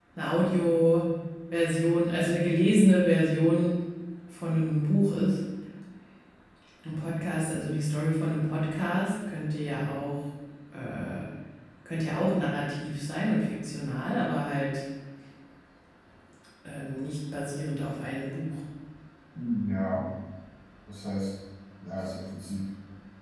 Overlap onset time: none

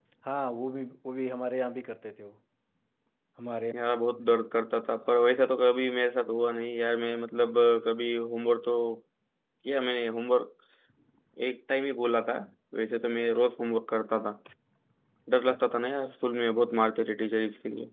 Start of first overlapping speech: none

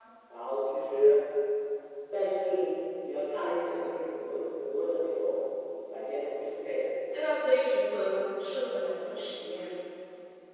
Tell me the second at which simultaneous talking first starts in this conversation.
none

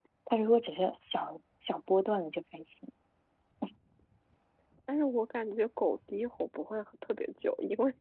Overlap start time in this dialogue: none

